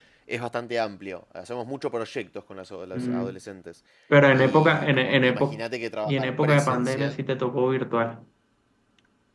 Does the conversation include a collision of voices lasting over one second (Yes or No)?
Yes